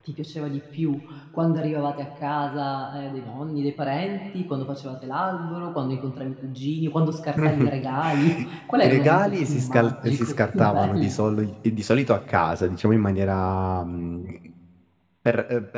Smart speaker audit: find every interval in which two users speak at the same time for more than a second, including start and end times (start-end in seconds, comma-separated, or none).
8.8-11.2